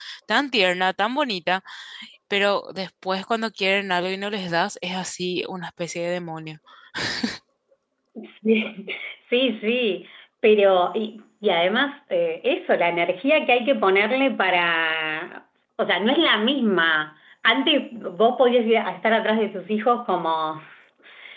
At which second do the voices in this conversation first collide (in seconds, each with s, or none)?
none